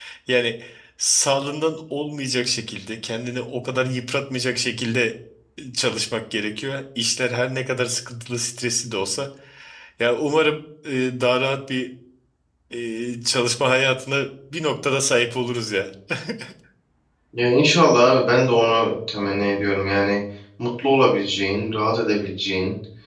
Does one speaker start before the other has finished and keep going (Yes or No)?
No